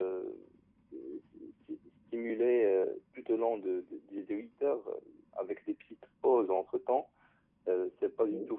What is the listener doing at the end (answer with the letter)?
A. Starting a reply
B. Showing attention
B